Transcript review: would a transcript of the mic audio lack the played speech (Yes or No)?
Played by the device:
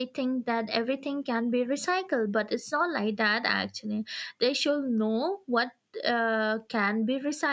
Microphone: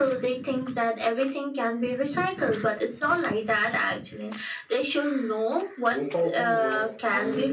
No